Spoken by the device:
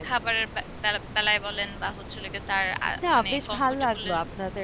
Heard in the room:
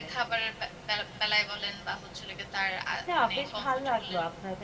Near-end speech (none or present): none